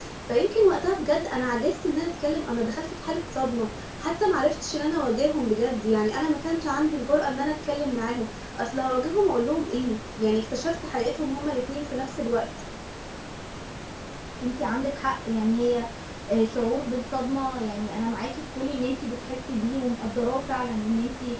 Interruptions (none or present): none